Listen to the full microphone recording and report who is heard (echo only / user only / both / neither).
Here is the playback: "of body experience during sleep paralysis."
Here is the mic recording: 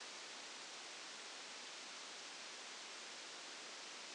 neither